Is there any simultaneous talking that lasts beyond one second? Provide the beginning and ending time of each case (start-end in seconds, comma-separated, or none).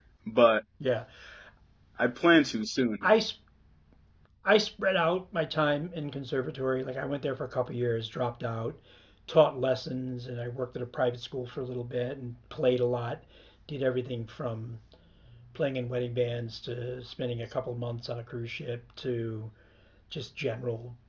none